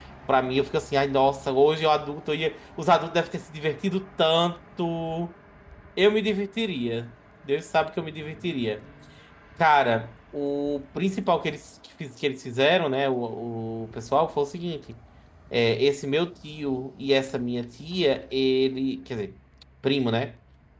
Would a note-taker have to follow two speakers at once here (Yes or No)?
No